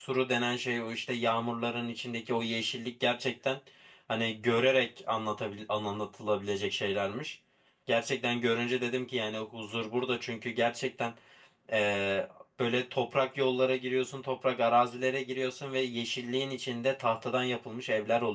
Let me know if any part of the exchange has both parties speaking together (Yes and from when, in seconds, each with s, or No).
No